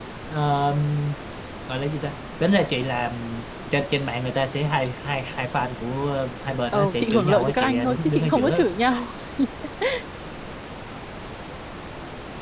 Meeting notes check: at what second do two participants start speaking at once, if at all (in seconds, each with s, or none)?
6.7 s